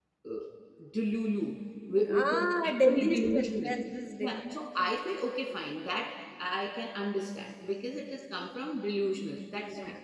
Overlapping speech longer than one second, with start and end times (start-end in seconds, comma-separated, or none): 2.1-3.8